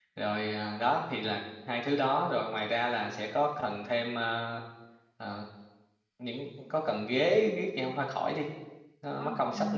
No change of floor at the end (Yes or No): No